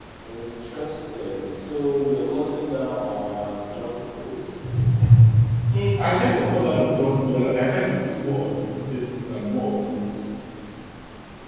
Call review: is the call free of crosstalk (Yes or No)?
Yes